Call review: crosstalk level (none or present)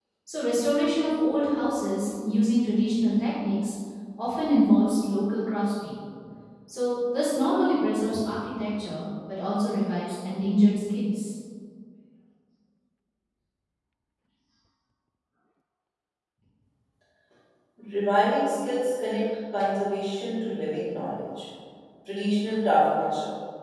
none